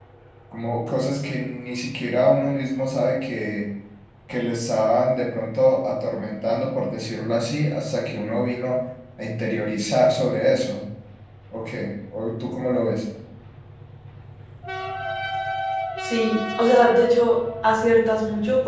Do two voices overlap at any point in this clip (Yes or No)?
No